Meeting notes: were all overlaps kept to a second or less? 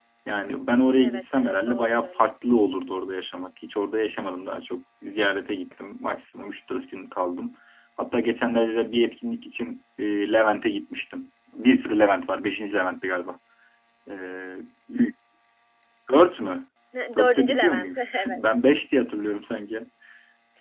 No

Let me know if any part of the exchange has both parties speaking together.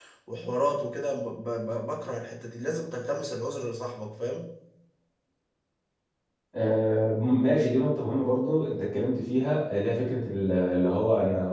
No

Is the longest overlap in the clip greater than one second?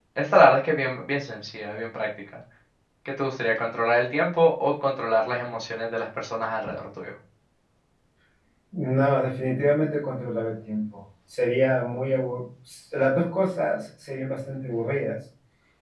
No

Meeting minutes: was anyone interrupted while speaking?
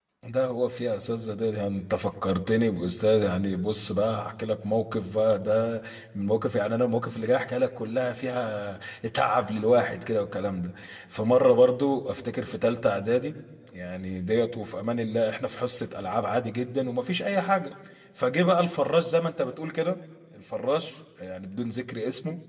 No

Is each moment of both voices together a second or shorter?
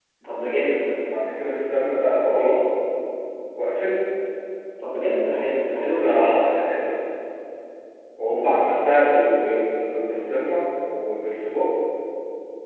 Yes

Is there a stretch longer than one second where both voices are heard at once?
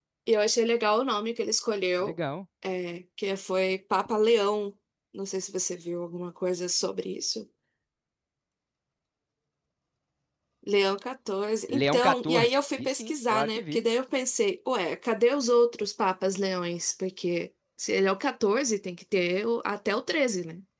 Yes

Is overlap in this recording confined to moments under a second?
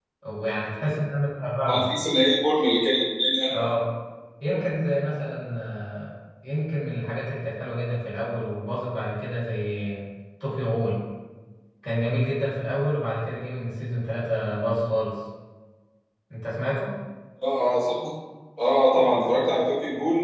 Yes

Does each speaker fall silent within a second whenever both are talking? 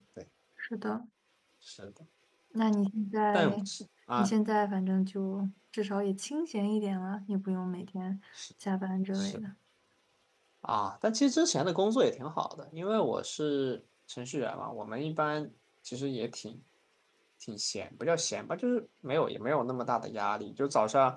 Yes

